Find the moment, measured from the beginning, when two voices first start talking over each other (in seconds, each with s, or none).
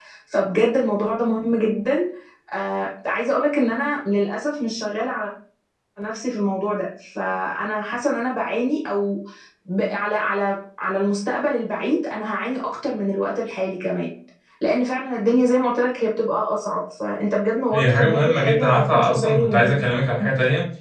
17.7 s